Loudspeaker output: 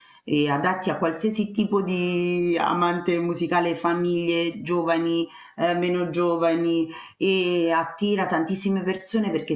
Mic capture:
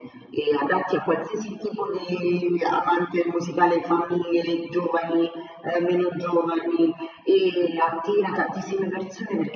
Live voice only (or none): none